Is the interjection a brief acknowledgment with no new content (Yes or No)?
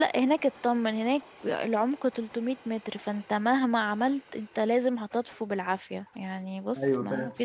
Yes